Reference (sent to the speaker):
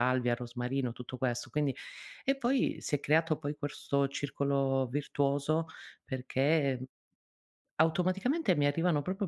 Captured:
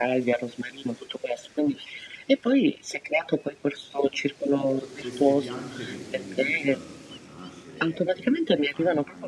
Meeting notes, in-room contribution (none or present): present